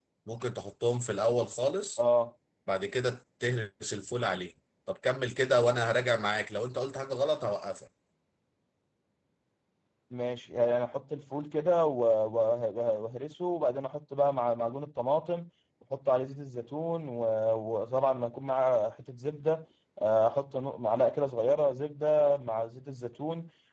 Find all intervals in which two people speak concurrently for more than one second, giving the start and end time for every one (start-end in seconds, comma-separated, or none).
none